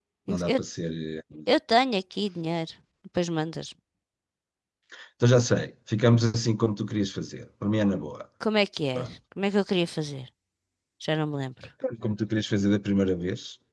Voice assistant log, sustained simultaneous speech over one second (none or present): none